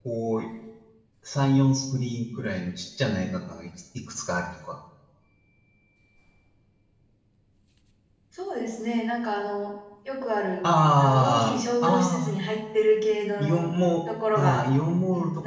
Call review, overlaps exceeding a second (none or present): present